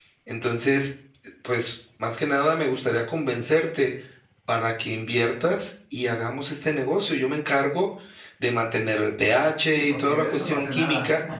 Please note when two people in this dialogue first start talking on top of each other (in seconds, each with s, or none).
9.7 s